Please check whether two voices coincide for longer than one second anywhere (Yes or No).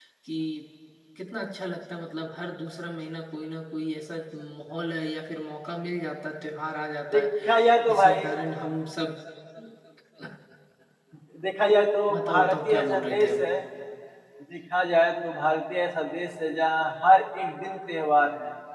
Yes